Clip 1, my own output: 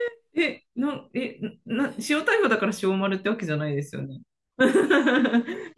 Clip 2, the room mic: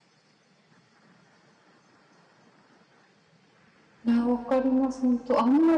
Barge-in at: 4 s

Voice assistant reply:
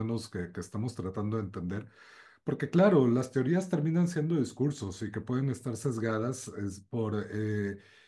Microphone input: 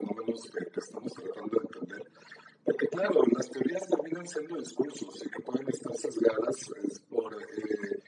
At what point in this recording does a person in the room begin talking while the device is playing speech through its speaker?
none

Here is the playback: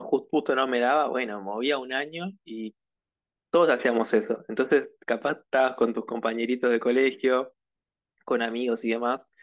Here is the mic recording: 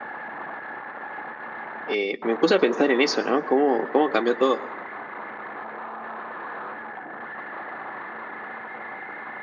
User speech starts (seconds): 2 s

